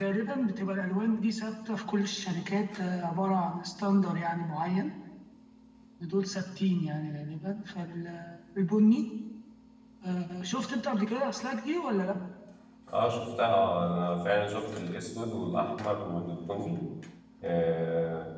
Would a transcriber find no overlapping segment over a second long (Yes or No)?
Yes